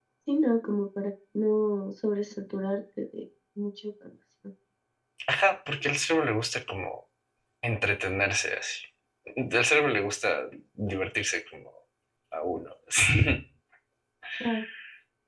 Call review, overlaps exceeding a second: none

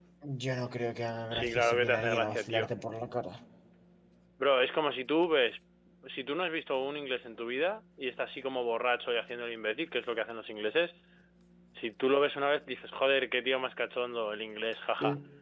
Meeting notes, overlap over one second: present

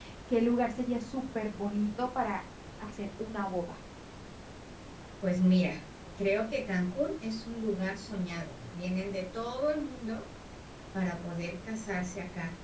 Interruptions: none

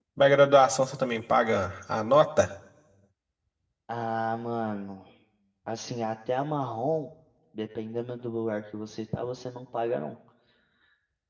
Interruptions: none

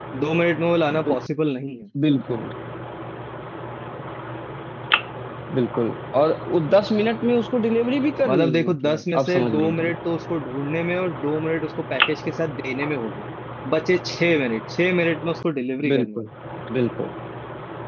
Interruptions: present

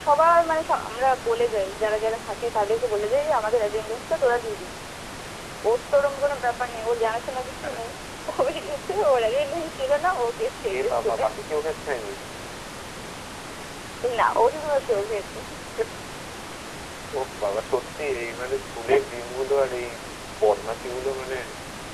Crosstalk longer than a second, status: none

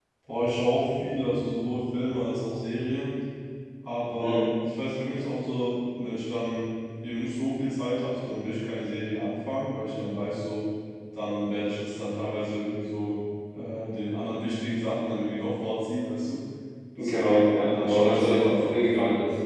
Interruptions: present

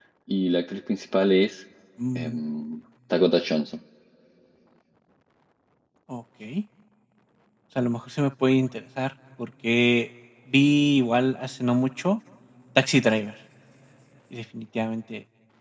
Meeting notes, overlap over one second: none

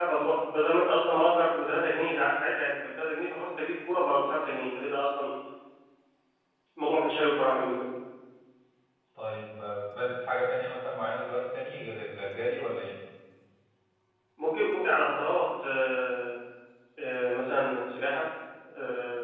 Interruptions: none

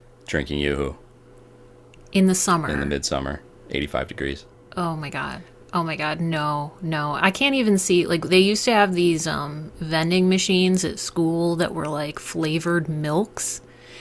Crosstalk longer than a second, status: none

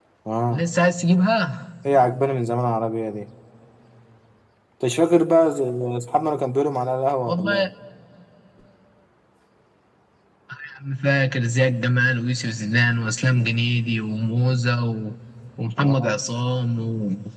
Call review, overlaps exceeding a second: none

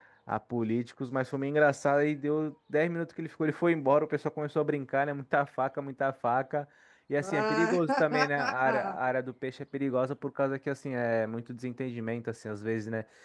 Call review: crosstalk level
present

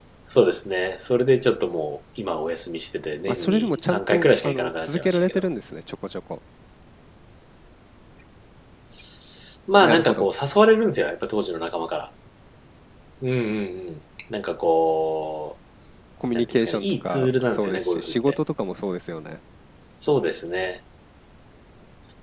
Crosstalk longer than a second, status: present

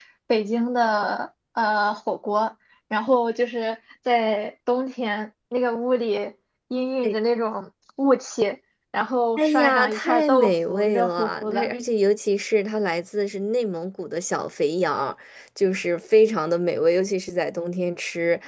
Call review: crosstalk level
present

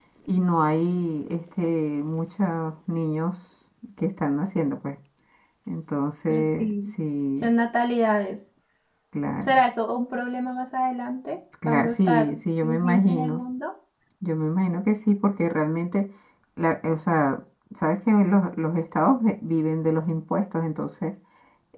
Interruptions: present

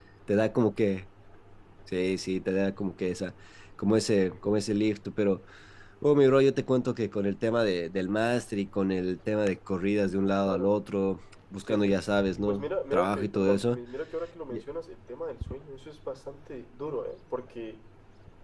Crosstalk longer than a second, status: present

